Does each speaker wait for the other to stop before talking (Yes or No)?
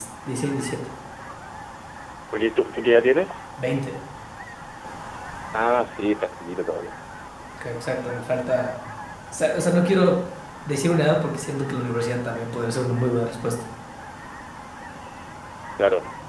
Yes